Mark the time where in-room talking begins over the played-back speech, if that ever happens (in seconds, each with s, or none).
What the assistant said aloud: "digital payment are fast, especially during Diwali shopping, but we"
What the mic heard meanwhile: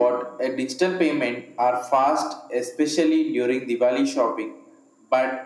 none